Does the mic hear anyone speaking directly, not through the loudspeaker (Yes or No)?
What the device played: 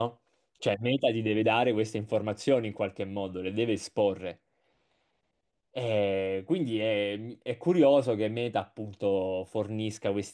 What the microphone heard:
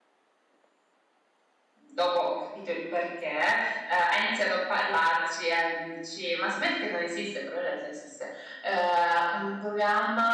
Yes